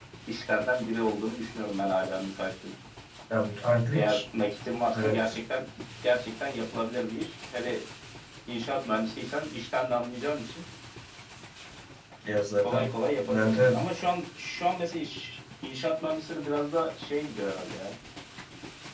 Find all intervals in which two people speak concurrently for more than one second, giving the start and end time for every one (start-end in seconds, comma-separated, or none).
none